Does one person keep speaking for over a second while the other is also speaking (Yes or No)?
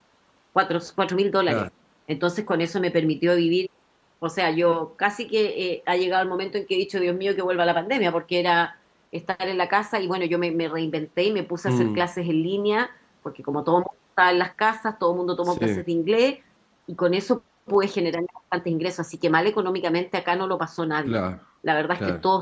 No